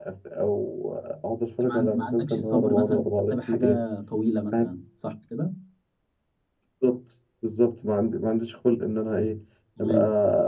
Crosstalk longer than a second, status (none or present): present